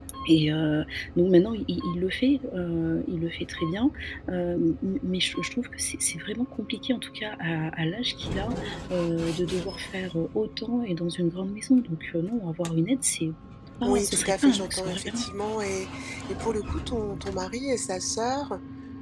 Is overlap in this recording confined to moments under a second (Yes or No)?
No